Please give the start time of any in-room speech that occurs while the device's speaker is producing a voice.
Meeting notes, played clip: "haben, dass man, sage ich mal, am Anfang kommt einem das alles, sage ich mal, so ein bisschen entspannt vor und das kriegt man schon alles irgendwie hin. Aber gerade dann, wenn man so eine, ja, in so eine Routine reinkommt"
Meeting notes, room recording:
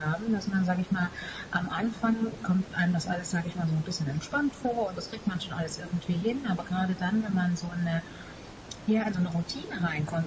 none

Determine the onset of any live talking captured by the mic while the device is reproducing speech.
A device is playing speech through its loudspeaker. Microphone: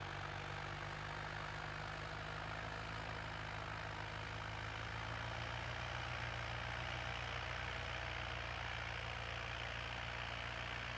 none

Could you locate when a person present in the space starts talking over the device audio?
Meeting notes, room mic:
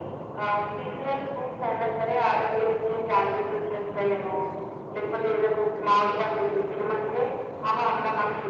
none

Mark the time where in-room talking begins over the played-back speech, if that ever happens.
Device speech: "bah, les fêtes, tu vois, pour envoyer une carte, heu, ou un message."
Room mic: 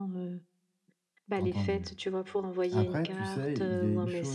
1 s

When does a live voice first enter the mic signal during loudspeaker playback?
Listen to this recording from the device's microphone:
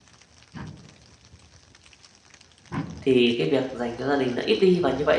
3 s

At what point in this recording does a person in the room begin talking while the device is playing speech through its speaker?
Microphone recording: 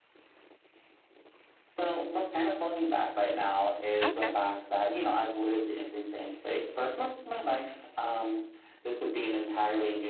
4 s

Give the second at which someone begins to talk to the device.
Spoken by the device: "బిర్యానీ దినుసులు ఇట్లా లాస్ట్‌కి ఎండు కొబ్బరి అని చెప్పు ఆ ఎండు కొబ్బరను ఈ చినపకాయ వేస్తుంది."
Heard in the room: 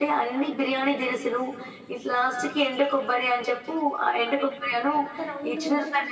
5 s

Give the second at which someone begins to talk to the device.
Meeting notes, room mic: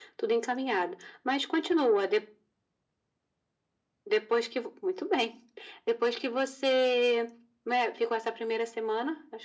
none

